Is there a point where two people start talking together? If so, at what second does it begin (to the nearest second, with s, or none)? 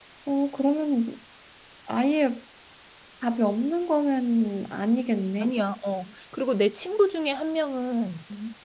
none